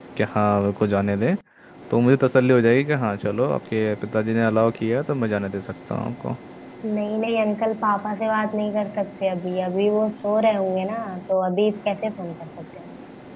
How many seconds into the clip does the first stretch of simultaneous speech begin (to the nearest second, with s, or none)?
none